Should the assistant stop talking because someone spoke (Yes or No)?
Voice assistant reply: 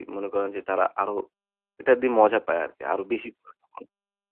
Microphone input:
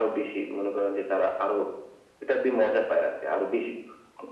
No